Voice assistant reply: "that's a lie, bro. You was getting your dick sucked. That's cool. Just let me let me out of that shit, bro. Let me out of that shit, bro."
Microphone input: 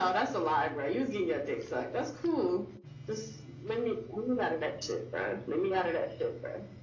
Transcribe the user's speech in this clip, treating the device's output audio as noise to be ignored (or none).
none